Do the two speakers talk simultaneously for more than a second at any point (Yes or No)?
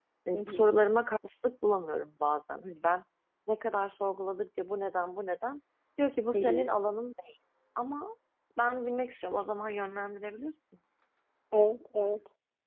No